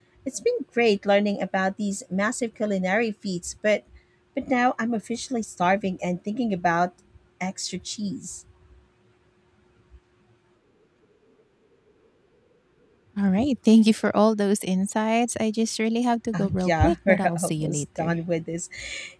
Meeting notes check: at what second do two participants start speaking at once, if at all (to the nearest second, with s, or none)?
16 s